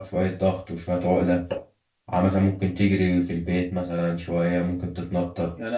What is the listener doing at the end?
taking over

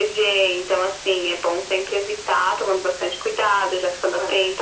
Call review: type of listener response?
listening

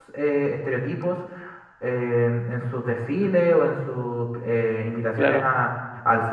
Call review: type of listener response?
listening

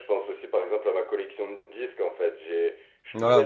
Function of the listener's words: listening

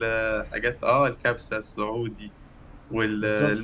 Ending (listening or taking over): listening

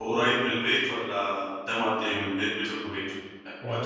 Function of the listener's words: taking over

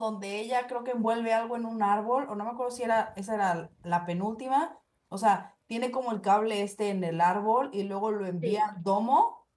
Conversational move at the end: listening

